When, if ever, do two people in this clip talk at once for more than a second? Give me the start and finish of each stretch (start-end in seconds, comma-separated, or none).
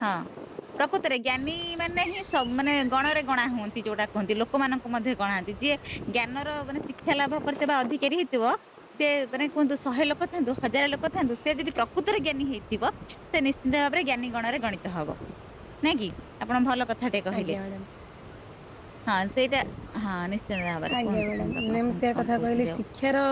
21.0-22.8